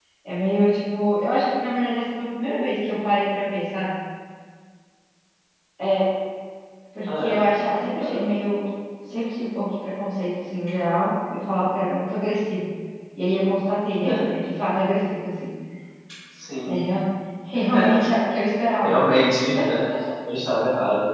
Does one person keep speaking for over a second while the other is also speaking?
No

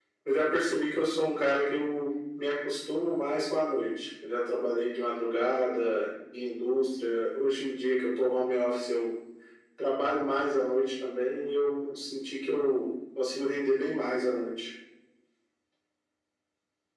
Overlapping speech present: No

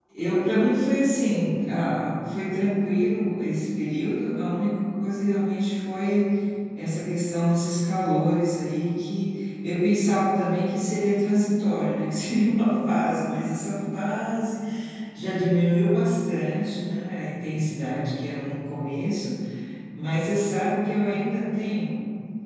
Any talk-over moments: No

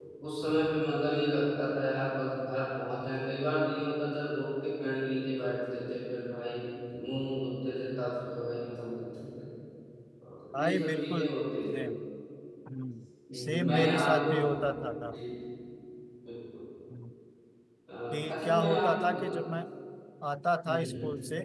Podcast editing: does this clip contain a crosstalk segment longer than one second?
Yes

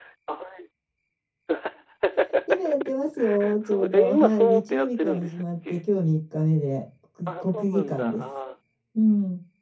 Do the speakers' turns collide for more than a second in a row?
Yes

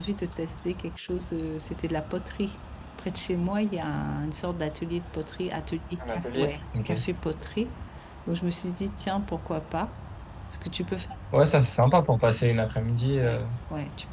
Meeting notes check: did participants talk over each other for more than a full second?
No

